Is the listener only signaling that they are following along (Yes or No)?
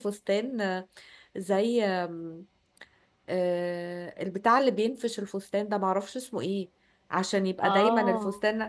Yes